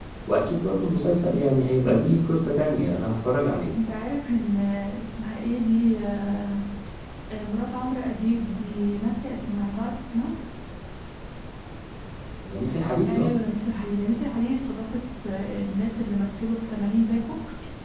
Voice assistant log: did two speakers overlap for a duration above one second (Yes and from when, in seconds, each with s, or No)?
No